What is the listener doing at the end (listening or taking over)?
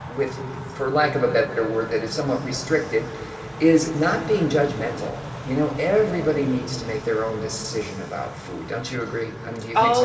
taking over